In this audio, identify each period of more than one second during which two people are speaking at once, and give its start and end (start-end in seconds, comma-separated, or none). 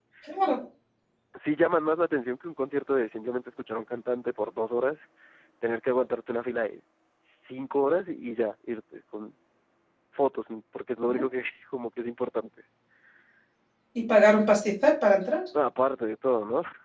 none